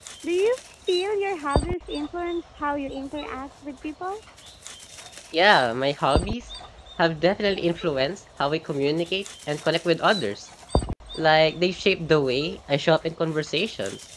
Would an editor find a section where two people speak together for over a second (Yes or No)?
No